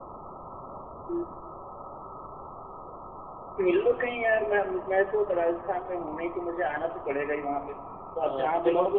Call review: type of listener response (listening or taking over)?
taking over